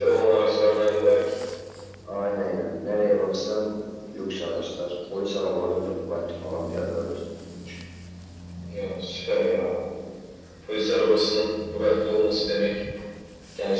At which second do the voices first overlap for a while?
none

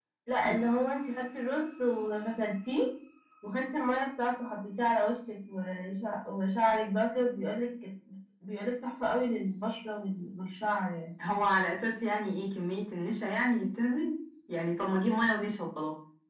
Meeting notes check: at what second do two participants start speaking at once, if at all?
none

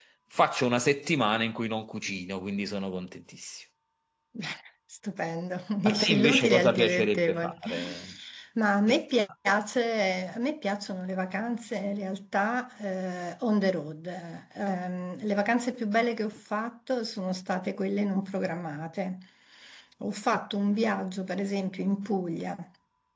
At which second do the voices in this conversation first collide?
6 s

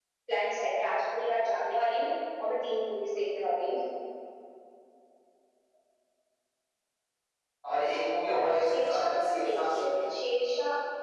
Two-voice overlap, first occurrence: 9 s

